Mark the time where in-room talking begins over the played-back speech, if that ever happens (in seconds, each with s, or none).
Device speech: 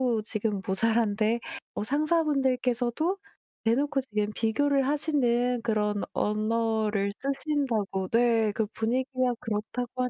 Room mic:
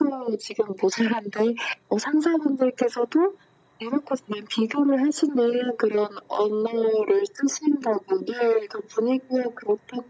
none